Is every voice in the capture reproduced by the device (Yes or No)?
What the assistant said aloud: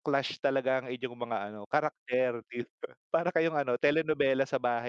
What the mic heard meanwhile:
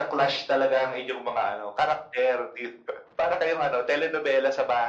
Yes